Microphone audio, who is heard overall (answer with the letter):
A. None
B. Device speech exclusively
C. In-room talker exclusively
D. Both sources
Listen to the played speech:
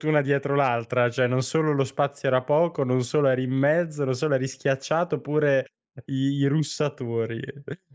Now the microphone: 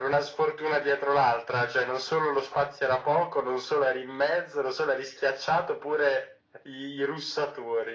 B